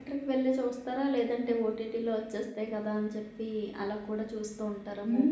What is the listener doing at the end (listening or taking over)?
taking over